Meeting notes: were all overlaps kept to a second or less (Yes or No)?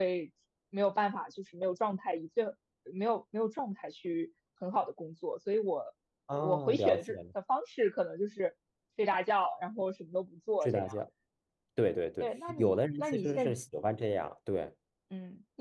No